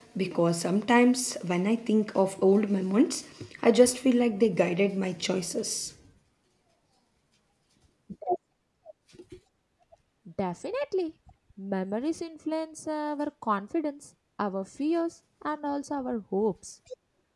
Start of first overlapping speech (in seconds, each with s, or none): none